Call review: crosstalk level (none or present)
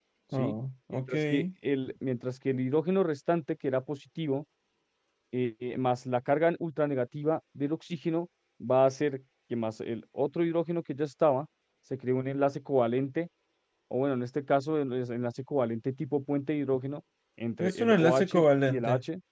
present